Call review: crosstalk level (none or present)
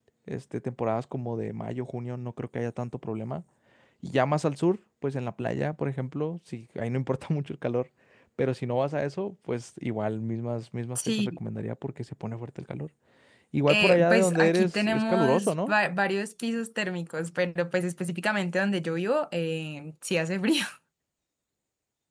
present